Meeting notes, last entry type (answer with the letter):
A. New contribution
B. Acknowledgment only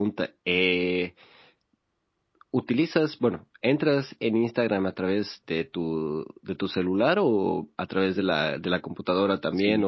A